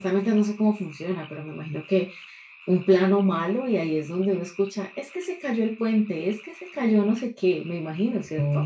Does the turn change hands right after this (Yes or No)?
Yes